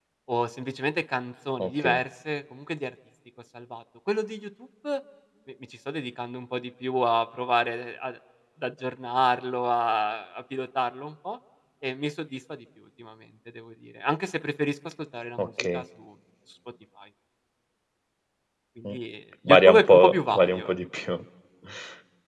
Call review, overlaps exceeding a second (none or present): present